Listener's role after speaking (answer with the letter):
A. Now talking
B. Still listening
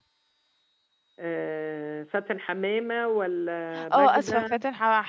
A